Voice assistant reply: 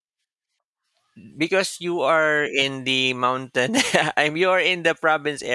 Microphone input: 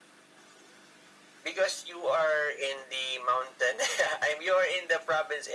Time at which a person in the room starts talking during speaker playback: none

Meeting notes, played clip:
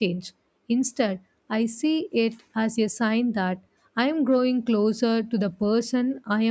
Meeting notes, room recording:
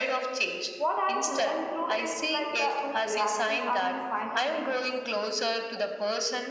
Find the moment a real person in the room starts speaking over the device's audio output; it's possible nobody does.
0.8 s

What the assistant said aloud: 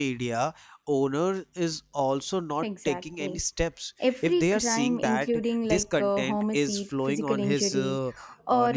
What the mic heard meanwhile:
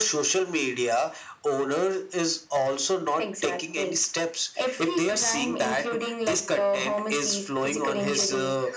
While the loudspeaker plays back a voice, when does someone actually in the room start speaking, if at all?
none

